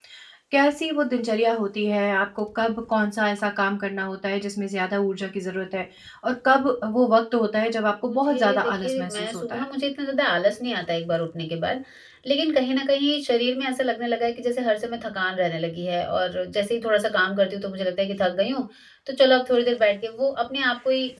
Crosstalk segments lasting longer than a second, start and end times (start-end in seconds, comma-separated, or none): 8.0-9.6